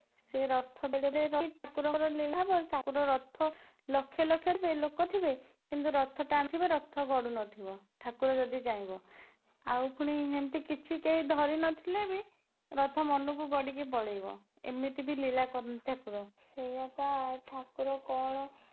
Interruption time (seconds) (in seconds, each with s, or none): none